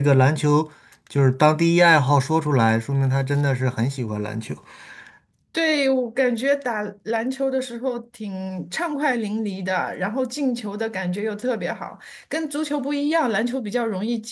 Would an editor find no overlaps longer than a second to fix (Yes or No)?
Yes